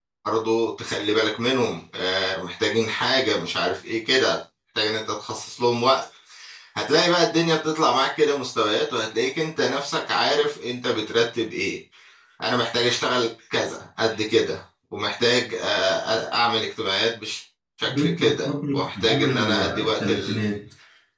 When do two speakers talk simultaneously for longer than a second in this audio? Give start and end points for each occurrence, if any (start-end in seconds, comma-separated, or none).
17.8-20.4